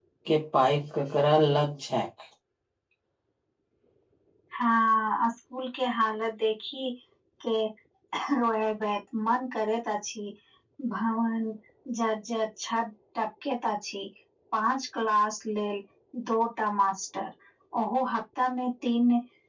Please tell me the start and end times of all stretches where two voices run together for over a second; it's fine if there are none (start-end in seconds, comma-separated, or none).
none